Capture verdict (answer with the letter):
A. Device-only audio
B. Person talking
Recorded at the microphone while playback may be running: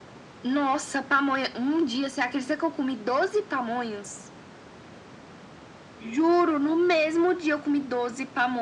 A